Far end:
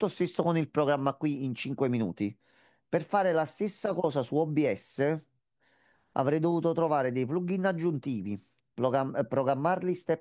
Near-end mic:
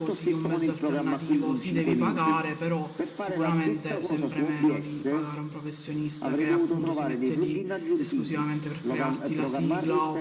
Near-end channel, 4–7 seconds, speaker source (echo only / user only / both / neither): both